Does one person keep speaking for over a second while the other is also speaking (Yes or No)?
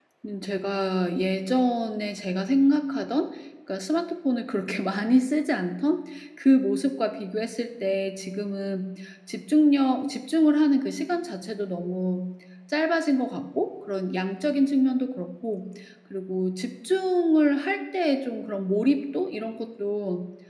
No